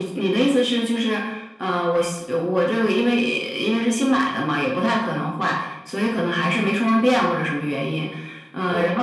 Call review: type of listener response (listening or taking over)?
listening